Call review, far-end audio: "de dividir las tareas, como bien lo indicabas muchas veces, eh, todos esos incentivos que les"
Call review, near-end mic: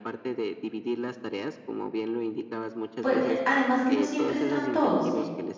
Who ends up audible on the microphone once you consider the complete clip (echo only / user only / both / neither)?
both